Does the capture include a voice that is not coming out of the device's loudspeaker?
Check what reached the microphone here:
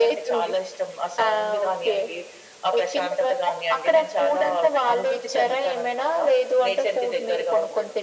No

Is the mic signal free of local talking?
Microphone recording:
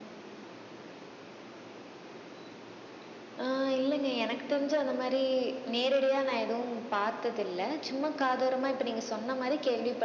Yes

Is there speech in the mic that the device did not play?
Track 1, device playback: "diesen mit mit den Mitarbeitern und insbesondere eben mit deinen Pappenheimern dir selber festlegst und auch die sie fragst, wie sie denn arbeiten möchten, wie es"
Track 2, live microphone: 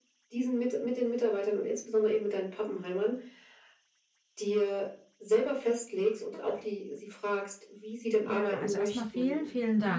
Yes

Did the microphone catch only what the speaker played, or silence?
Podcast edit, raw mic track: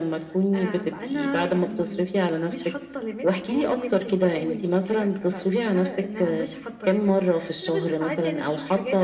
Yes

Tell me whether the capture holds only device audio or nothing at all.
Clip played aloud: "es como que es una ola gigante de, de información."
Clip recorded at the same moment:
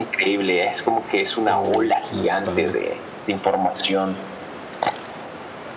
No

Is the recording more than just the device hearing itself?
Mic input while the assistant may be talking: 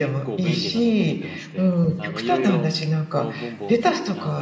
Yes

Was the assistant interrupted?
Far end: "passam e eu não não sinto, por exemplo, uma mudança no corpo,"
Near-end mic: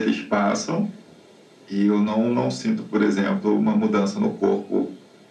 No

